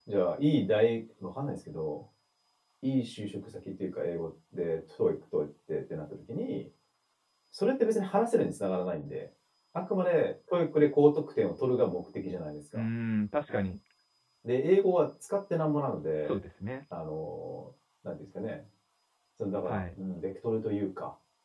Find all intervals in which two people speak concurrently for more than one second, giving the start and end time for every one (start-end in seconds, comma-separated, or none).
none